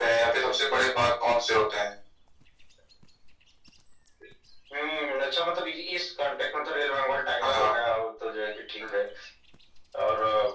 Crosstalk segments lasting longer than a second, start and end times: none

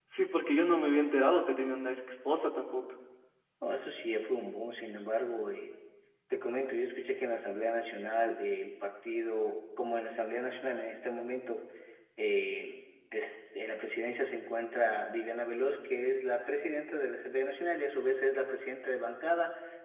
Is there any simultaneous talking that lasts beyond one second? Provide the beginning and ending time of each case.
none

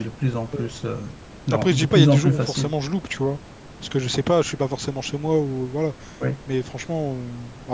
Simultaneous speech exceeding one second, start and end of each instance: 1.5-2.7

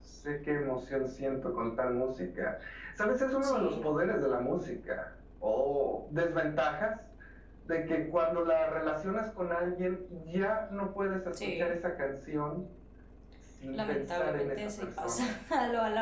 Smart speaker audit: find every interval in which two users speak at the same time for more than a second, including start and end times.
13.7-15.2

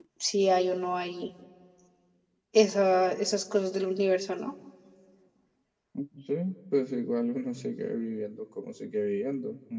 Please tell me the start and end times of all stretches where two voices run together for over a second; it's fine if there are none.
none

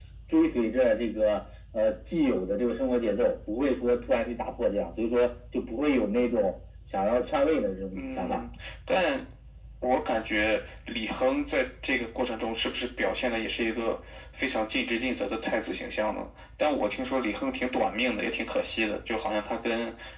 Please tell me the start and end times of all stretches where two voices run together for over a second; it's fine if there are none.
none

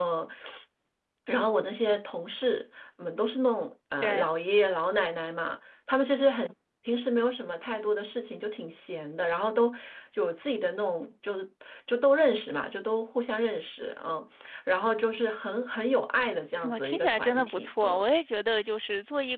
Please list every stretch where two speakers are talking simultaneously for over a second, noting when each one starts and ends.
16.7-18.0

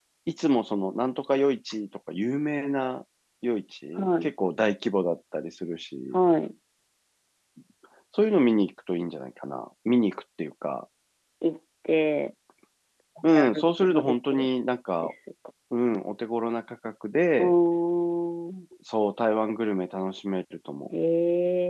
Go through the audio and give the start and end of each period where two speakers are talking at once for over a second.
13.2-14.5

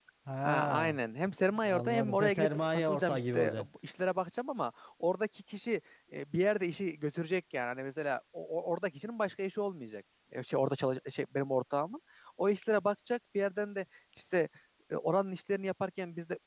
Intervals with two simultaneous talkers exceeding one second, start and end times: 1.7-3.6

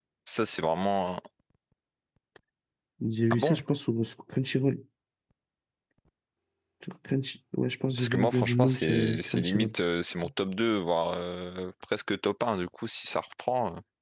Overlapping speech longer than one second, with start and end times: 8.0-9.7

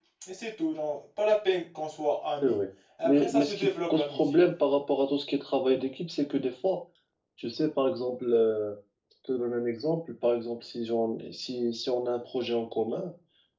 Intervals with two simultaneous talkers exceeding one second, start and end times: 3.0-4.4

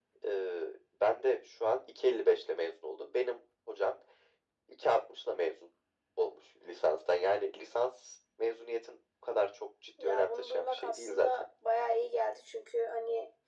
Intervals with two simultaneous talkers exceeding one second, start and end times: 10.0-11.3

